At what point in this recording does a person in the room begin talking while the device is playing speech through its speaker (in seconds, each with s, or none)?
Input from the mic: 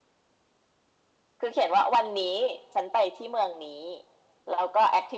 none